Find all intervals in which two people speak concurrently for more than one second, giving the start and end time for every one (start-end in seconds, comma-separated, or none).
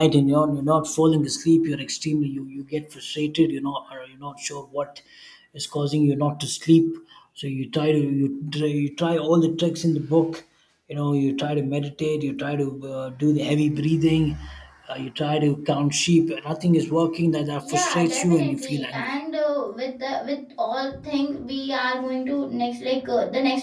17.6-19.2